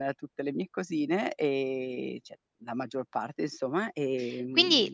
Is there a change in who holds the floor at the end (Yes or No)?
Yes